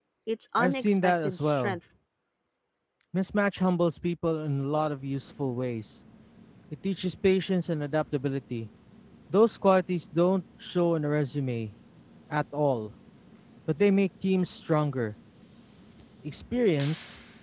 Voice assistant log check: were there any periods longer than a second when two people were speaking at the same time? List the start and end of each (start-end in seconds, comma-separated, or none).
0.6-1.8